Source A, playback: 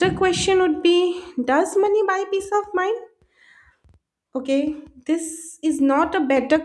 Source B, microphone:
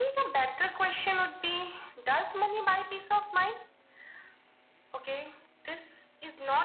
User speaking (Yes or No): No